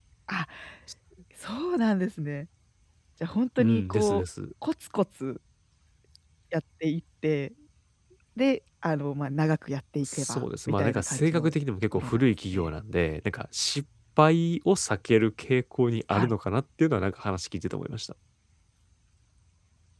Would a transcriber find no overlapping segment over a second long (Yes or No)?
No